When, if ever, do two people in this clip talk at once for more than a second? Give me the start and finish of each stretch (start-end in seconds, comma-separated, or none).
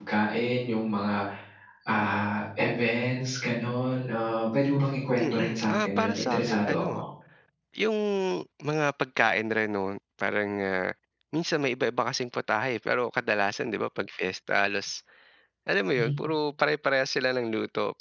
5.2-7.0